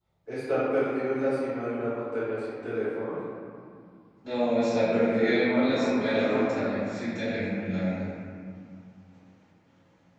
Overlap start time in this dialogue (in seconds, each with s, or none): 4.7 s